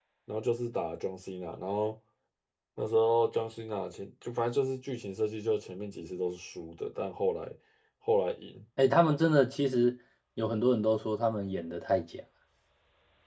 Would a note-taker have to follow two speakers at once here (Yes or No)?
No